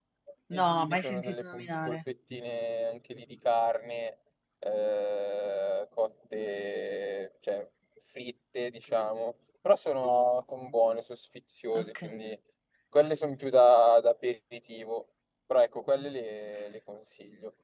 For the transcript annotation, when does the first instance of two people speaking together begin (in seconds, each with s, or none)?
0.6 s